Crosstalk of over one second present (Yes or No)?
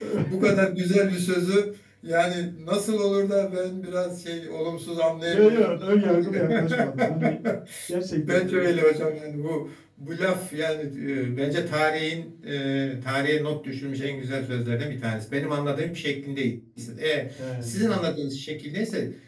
Yes